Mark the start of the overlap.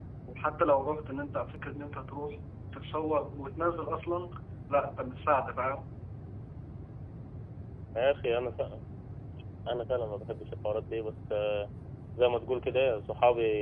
none

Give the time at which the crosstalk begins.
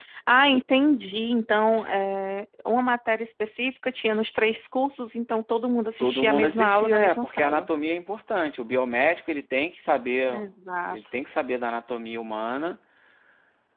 6 s

